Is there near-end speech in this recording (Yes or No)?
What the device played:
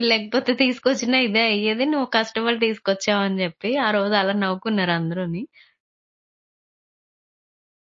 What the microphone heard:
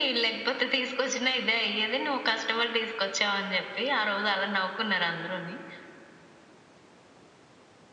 No